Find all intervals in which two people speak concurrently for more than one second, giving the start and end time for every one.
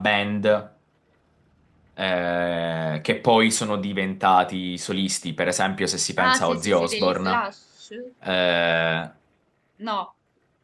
6.2-7.4

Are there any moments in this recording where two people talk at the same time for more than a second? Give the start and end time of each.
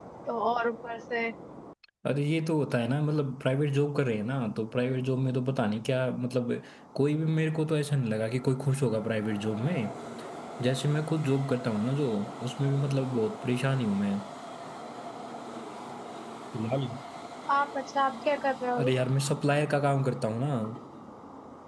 none

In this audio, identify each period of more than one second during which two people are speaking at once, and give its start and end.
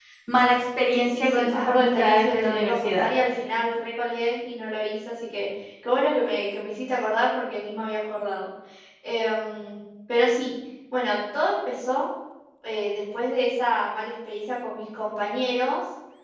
0.9-3.0

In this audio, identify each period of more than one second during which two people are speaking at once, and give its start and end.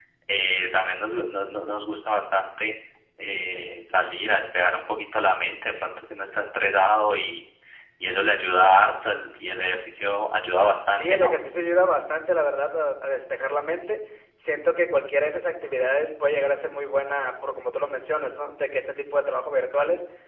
none

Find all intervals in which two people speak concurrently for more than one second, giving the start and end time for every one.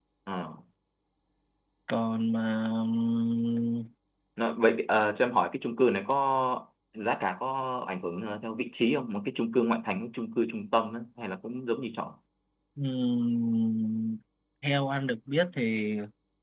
none

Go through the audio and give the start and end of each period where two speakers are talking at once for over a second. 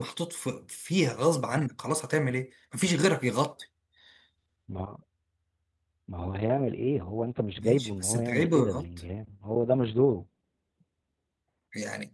7.6-8.8

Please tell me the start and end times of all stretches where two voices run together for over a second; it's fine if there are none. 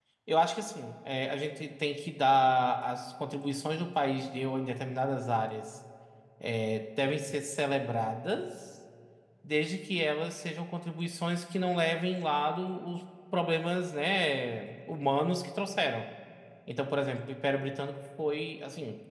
none

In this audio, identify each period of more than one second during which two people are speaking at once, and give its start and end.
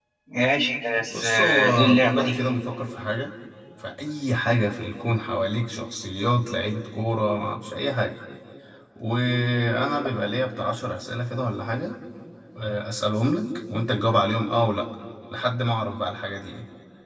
1.1-2.4

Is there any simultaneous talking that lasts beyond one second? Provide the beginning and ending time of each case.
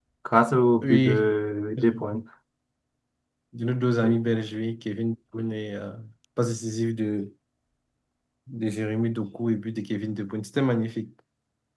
none

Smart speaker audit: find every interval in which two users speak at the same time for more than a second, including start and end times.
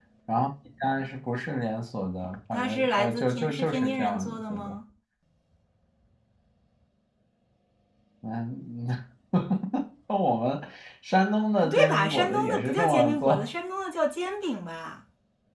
2.5-4.8, 11.6-13.5

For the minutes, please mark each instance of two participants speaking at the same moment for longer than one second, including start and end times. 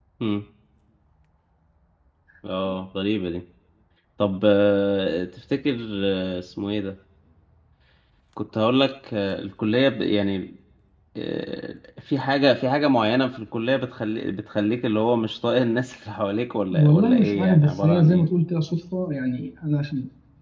16.7-18.2

